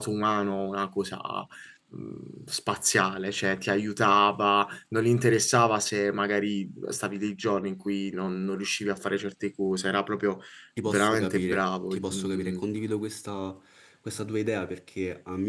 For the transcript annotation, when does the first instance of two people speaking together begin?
10.8 s

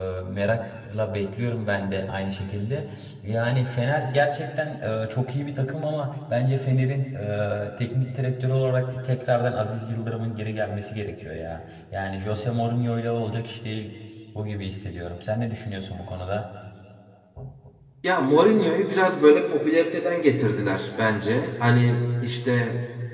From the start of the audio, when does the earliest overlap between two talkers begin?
none

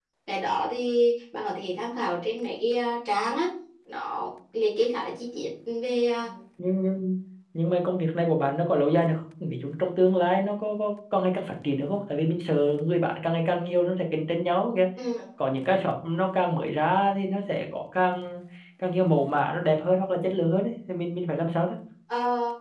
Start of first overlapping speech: none

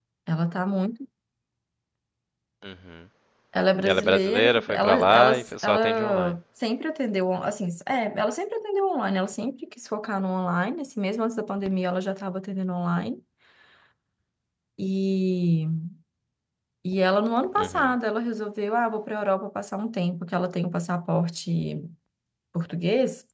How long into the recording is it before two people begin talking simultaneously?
3.8 s

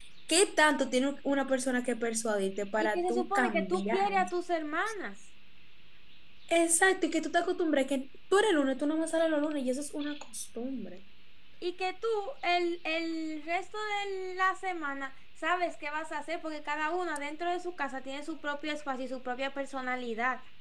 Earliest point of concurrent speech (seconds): 2.8 s

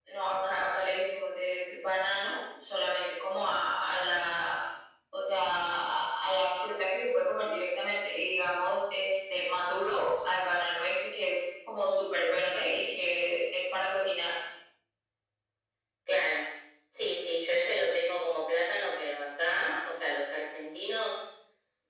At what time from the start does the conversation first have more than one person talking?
none

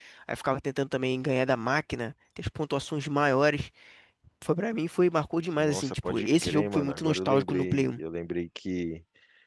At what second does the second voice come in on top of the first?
5.5 s

